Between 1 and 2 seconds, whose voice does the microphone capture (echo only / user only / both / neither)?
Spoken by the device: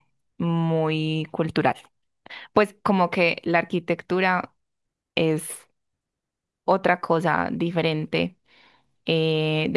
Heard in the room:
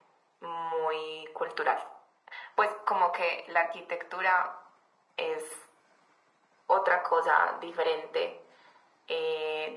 echo only